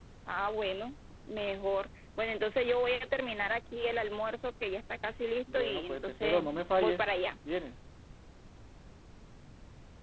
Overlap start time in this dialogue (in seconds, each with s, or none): 5.5 s